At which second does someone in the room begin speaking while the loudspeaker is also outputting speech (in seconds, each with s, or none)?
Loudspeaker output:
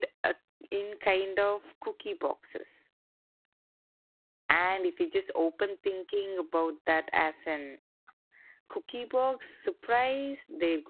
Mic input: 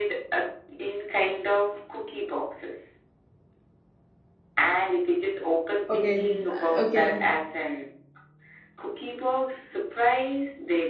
5.9 s